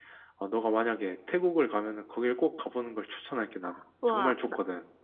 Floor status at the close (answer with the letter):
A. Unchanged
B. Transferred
B